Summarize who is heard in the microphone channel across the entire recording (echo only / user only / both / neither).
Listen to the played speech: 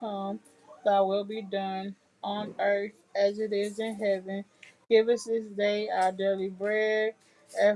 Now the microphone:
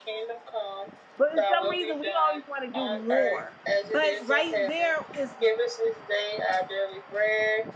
both